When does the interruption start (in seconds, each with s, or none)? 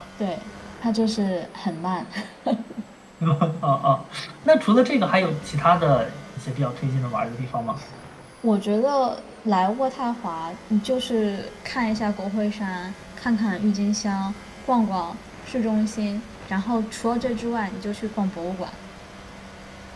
none